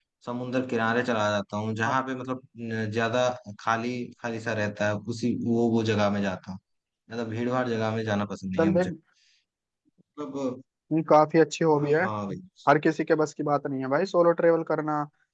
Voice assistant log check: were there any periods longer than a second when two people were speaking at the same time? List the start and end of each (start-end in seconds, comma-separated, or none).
none